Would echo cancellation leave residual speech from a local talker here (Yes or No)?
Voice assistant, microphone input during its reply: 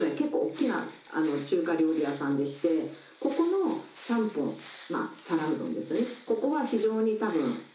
No